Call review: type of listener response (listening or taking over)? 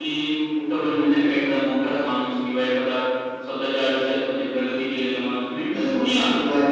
taking over